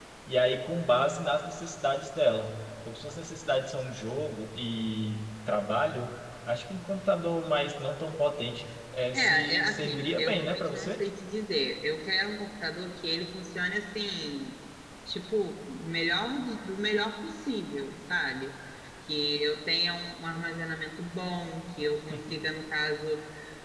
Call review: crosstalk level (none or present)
present